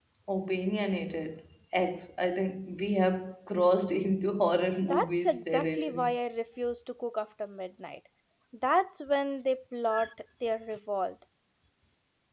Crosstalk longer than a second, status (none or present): present